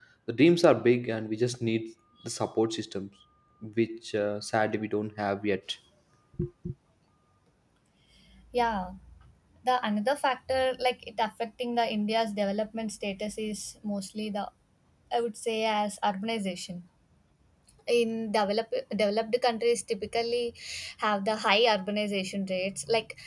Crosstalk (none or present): none